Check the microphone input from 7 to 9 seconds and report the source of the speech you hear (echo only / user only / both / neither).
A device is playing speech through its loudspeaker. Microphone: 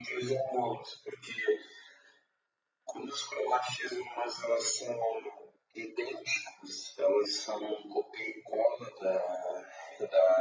echo only